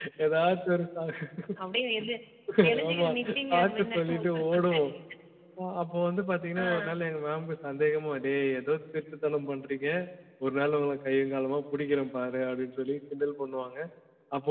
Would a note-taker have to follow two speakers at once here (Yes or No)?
Yes